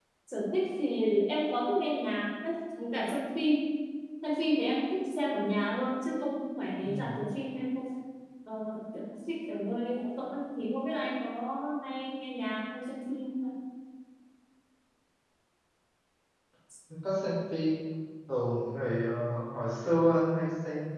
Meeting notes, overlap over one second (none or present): none